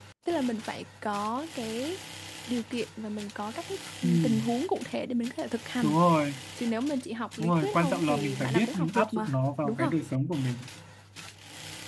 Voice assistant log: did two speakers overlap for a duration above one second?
Yes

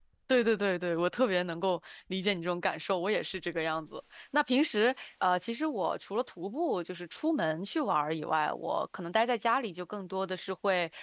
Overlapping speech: No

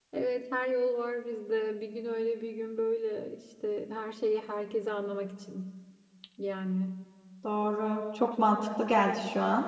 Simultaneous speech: No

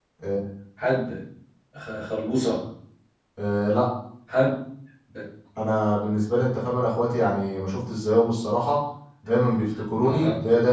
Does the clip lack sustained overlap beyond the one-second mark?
Yes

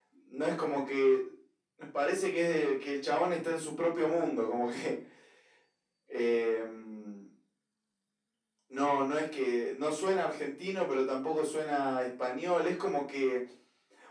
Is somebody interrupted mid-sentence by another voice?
No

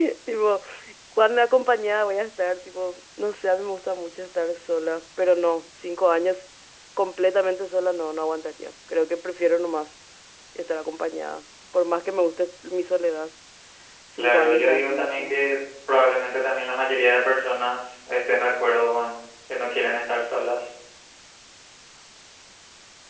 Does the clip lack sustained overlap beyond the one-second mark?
No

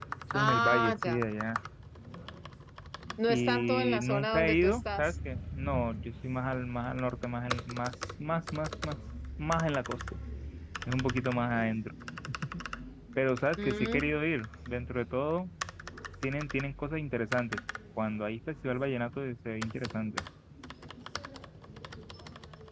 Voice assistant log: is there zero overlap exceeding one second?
No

